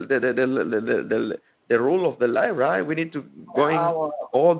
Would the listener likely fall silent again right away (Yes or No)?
Yes